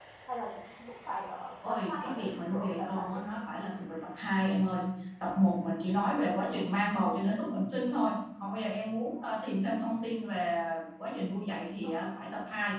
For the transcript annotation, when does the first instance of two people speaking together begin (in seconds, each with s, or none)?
1.6 s